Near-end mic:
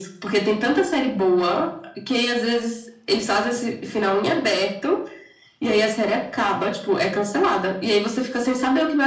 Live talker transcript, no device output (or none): none